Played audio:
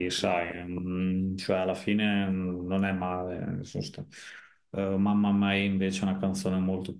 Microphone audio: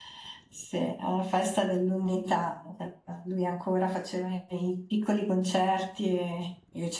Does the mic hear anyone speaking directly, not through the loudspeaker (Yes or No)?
Yes